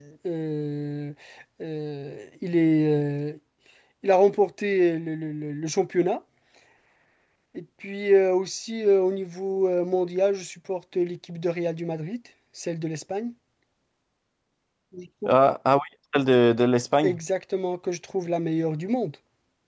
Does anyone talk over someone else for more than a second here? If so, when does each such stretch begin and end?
none

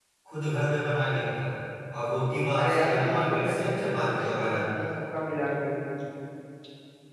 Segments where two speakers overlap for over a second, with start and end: 2.6-4.7

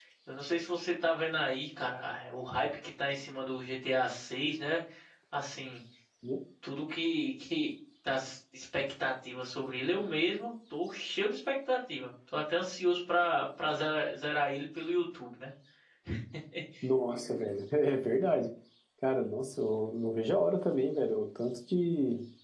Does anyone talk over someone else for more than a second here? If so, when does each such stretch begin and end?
none

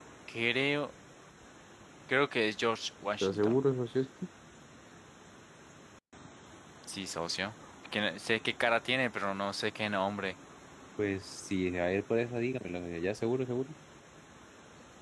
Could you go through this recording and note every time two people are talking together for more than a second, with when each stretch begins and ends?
none

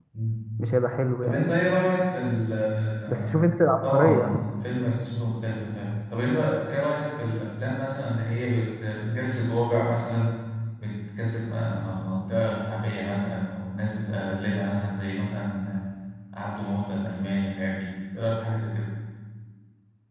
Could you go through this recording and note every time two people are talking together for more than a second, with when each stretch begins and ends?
3.1-4.3

